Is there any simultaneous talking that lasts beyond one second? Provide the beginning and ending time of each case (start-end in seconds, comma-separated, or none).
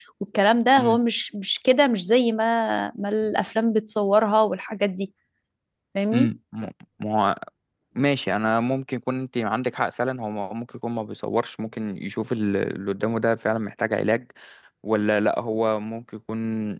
none